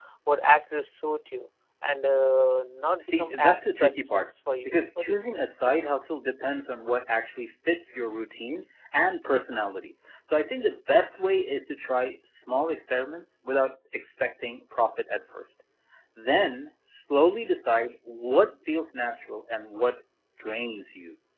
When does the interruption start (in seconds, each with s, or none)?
3.0 s